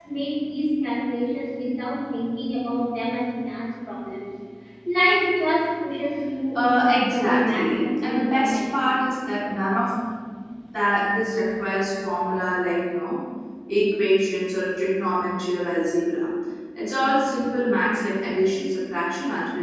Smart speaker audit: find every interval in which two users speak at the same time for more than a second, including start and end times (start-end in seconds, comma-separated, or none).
6.5-8.7